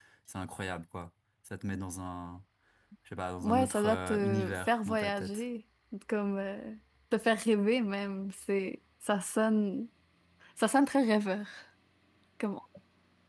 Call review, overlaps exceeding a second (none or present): present